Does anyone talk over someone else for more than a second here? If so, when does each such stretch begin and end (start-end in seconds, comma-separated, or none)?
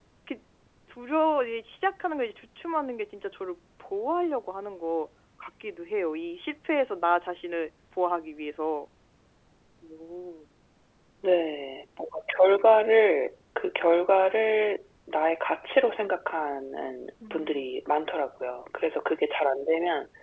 none